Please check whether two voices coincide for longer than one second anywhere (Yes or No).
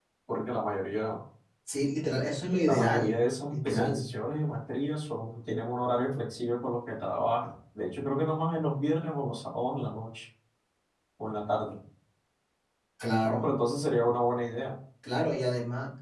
Yes